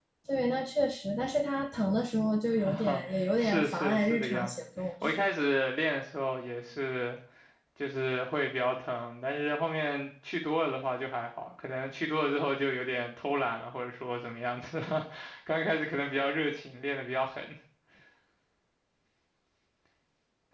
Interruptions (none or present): present